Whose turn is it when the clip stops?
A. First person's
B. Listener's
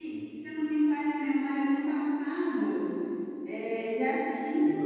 A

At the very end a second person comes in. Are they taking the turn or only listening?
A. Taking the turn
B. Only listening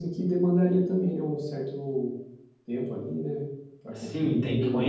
A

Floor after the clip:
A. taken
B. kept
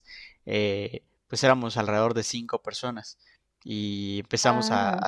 B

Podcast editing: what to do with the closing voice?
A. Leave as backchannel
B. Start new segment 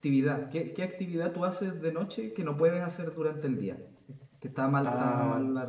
A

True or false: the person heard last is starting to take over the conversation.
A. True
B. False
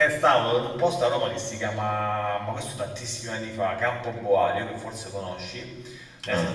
B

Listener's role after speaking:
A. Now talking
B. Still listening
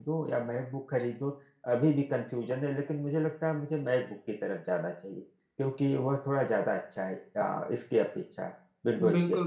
A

